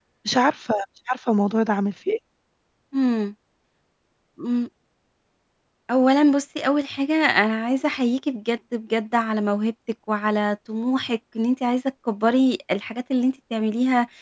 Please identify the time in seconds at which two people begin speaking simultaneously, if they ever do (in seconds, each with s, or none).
none